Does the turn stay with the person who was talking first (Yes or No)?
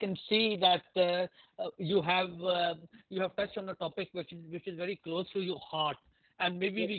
Yes